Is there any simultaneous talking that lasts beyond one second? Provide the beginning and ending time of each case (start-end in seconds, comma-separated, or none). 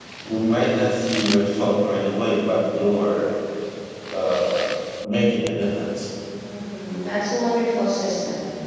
none